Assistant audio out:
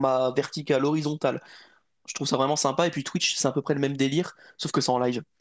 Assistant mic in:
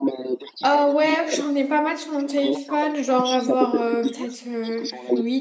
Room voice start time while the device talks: 1 s

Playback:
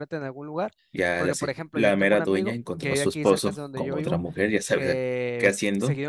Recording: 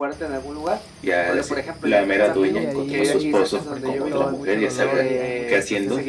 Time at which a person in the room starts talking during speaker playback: 2 s

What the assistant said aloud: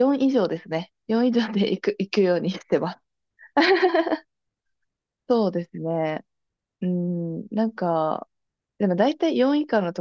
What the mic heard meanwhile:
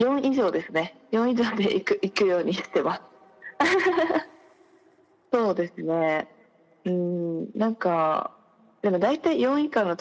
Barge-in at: none

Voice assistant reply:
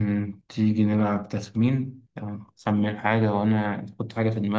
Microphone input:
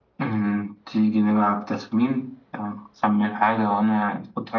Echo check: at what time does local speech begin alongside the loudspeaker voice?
none

